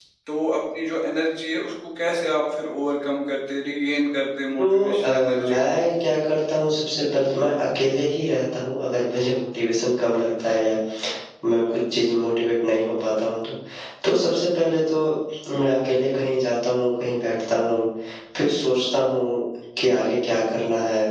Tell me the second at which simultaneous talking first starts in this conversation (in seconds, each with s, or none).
4.6 s